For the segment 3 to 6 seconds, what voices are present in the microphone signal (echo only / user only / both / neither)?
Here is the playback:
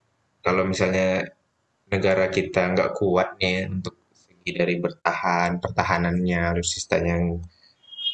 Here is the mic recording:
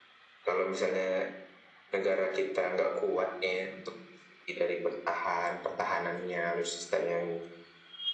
echo only